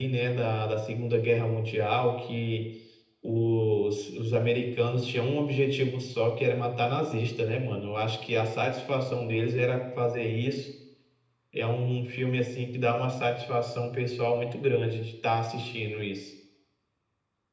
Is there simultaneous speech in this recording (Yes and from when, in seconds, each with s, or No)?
No